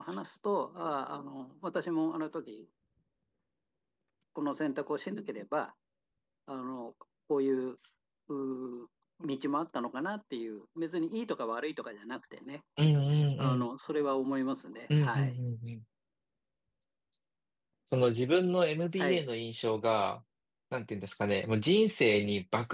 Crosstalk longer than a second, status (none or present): none